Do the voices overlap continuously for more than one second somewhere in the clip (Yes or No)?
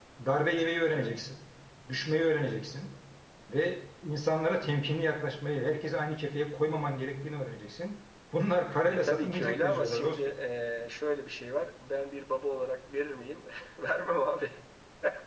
Yes